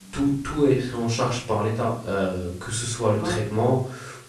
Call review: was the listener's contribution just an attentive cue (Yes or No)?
Yes